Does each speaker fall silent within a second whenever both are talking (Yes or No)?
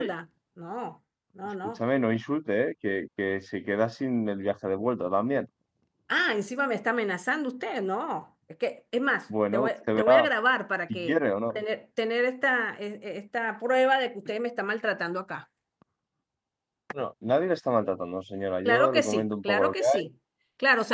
No